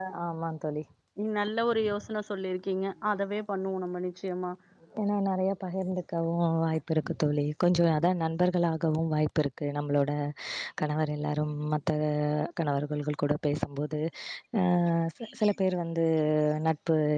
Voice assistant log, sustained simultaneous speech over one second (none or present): none